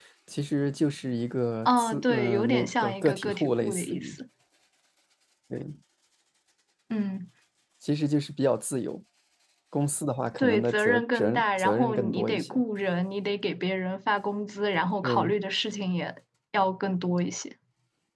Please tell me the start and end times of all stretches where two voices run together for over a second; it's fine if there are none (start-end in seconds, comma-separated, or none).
1.6-4.1, 10.4-12.6